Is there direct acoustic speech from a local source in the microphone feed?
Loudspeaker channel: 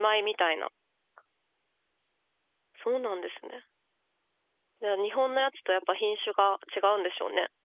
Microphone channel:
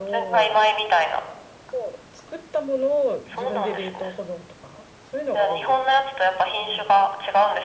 Yes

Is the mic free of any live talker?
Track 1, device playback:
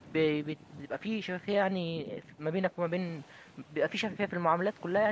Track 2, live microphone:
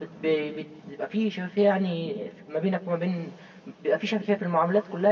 Yes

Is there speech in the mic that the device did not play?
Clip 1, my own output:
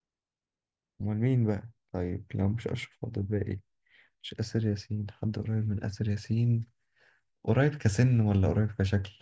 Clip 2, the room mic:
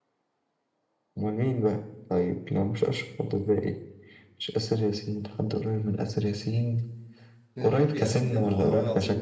Yes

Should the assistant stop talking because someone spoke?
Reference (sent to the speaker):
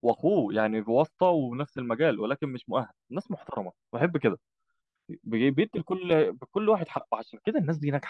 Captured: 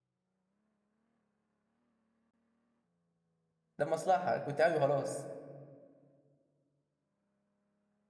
Yes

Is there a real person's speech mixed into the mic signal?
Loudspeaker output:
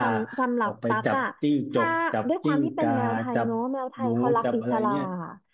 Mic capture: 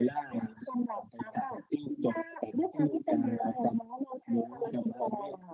No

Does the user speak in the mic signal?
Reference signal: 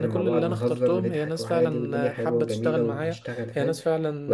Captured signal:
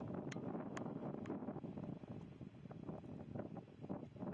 No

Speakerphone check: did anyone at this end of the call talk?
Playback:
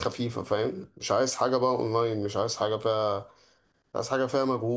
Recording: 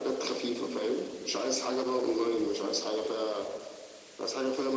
No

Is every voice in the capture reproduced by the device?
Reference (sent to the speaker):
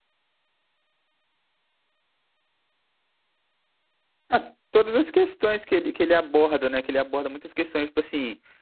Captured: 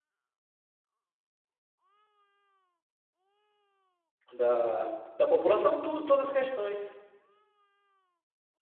No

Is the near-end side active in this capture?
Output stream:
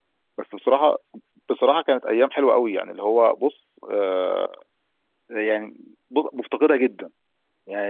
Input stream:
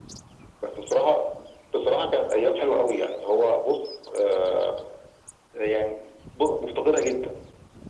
No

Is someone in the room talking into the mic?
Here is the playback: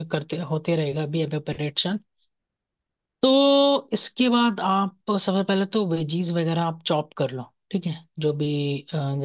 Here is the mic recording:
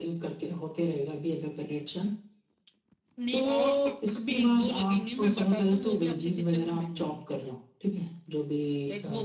Yes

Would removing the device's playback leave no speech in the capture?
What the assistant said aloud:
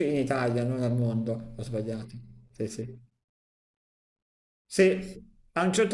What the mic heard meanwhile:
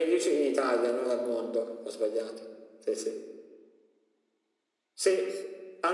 Yes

